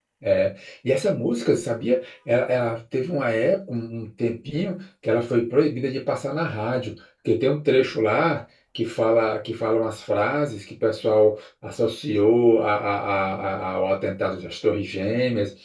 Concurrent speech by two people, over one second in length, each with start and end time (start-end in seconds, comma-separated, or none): none